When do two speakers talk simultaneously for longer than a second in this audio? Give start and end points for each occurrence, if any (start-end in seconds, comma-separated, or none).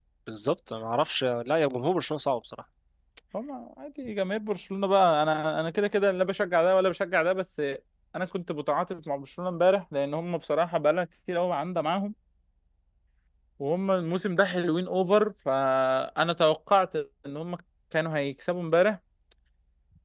none